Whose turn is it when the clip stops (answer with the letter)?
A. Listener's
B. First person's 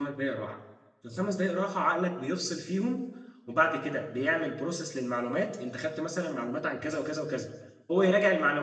B